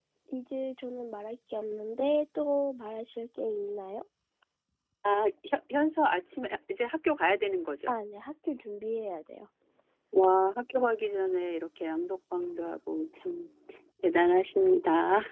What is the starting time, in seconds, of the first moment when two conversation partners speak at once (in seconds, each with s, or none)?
none